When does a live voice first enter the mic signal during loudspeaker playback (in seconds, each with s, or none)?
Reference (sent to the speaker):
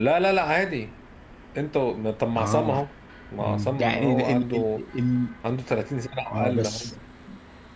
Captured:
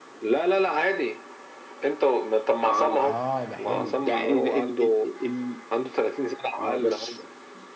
3.0 s